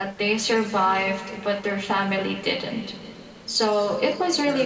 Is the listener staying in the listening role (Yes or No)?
Yes